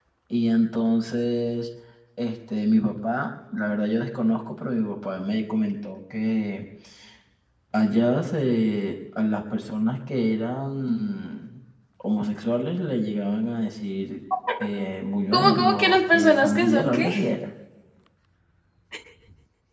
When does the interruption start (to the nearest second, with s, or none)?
15 s